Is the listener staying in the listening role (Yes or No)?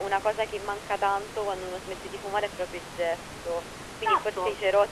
Yes